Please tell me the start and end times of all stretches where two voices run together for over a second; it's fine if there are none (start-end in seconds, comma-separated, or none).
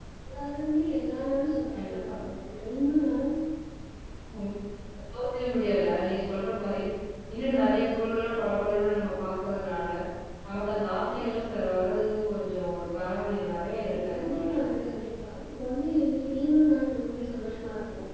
none